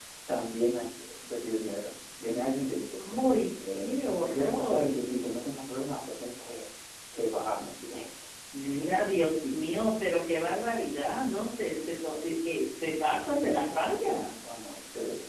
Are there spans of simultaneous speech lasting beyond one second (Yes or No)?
Yes